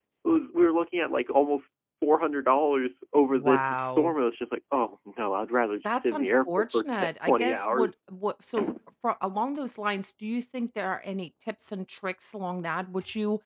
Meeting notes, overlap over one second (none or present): present